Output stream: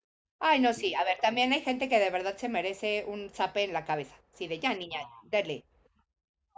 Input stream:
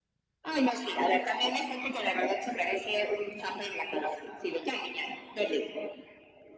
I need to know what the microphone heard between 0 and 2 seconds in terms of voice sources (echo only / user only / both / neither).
echo only